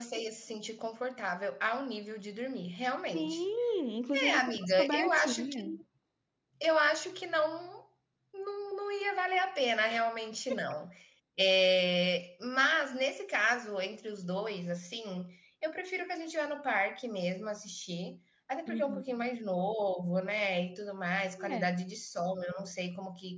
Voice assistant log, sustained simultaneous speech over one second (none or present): present